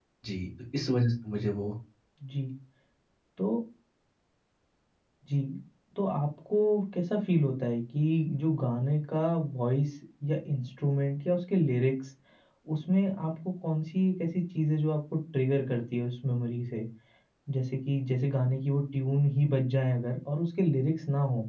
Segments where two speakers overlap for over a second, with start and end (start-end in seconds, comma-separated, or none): none